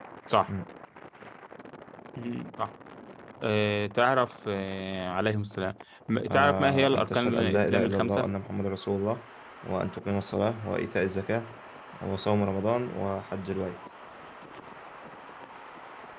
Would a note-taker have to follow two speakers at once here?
Yes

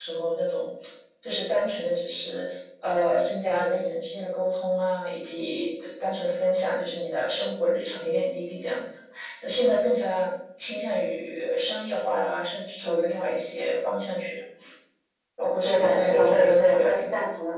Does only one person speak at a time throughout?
No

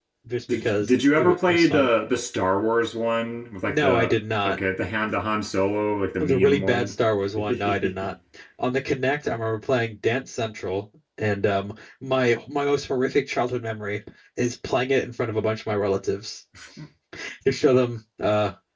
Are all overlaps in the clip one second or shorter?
No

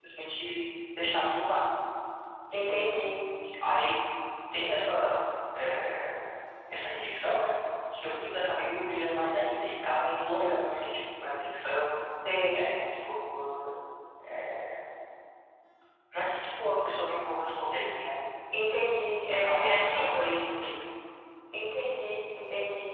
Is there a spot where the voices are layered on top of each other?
Yes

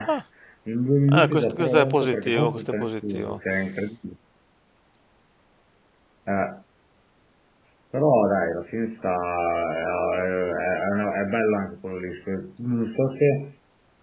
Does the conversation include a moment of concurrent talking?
Yes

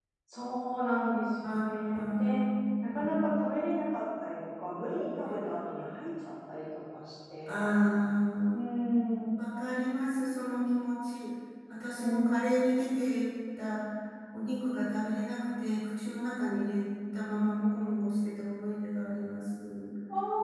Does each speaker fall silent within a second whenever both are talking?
Yes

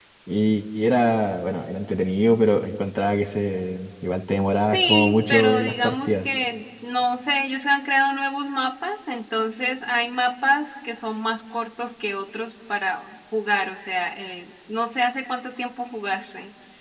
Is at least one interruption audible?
Yes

